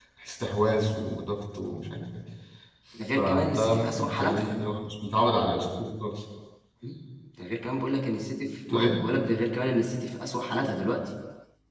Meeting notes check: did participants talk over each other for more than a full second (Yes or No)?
Yes